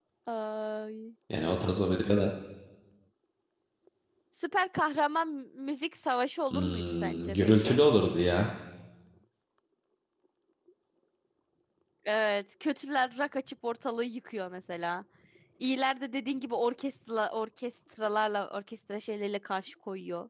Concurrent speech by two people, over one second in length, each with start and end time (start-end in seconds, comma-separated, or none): 6.5-7.8